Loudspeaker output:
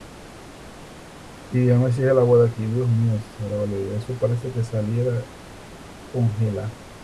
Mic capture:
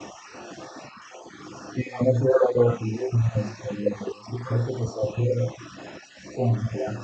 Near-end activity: none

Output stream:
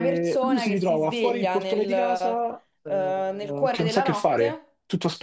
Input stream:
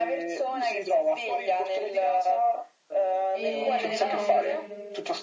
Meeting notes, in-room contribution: present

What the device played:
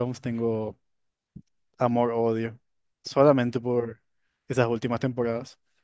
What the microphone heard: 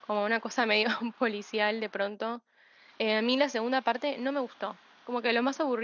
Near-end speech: present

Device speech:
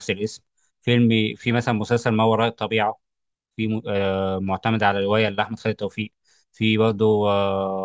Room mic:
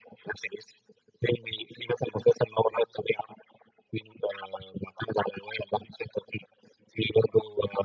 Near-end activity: none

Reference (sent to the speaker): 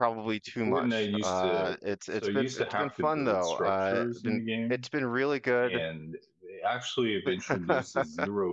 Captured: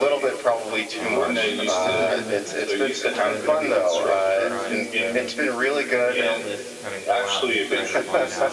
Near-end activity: present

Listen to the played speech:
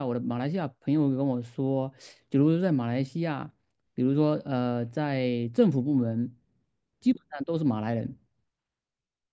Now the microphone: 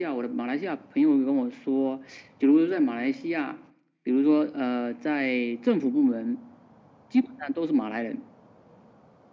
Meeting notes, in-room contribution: none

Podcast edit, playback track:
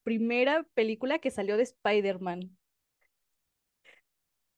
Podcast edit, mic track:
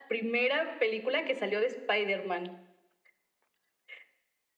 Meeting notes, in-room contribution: none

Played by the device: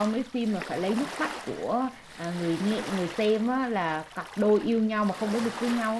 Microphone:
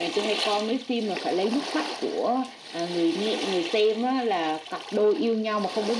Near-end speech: none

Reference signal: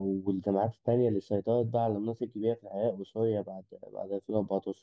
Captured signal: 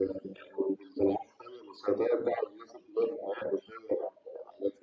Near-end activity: none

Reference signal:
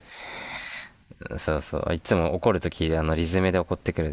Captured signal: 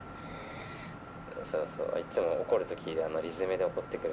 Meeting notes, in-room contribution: none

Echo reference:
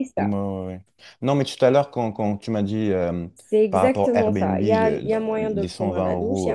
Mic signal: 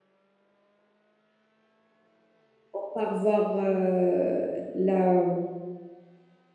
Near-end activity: present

